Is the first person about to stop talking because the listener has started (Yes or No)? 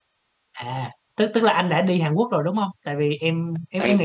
No